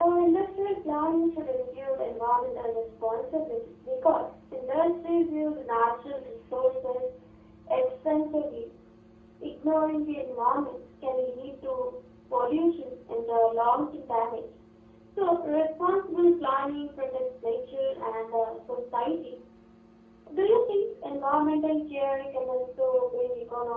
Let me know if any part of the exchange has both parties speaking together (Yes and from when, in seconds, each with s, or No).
No